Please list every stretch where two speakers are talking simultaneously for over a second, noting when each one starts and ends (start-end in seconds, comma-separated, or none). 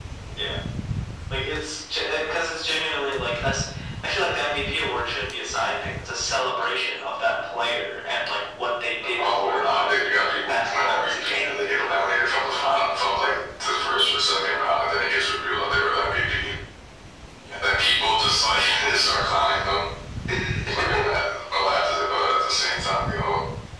9.0-12.1